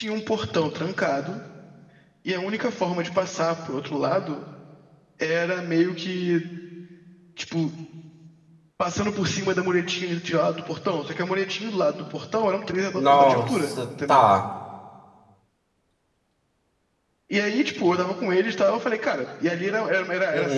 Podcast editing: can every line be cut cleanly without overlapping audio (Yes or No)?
No